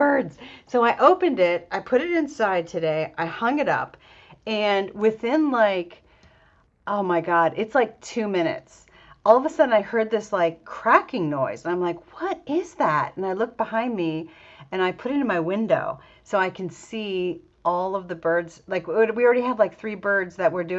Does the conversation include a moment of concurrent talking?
No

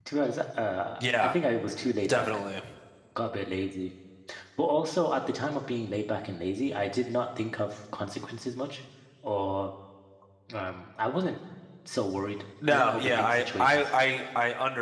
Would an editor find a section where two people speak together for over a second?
Yes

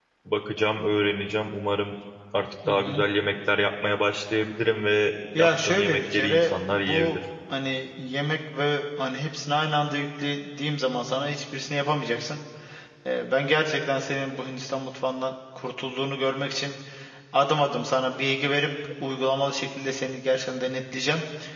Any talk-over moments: Yes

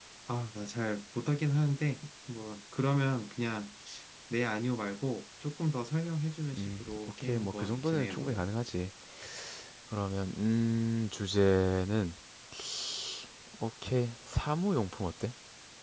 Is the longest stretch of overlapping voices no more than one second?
No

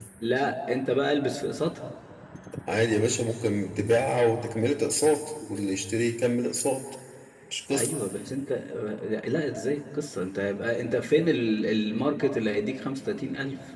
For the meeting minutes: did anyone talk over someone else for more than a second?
No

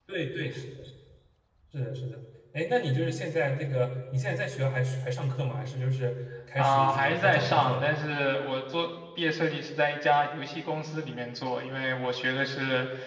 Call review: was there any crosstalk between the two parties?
Yes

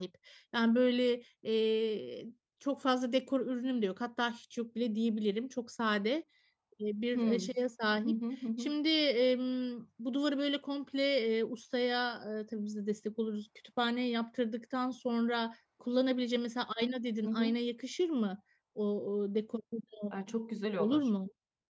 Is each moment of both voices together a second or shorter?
Yes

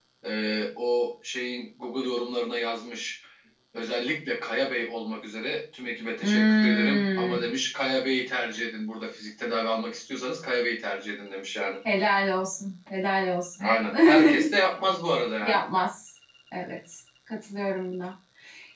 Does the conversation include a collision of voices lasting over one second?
Yes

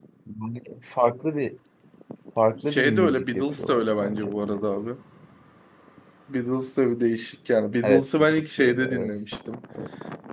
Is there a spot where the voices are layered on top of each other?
Yes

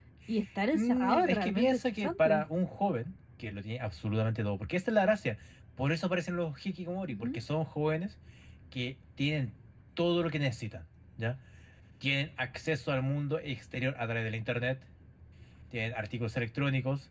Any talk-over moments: Yes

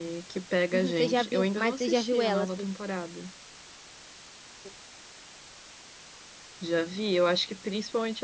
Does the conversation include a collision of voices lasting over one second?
Yes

